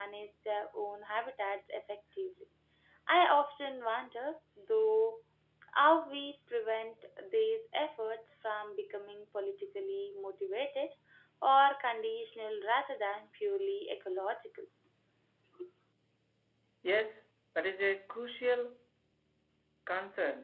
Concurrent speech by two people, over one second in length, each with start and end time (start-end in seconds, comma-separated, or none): none